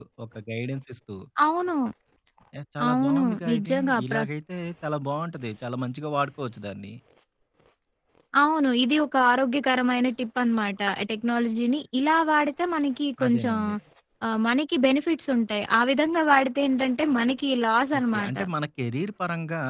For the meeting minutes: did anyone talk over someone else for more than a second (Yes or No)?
Yes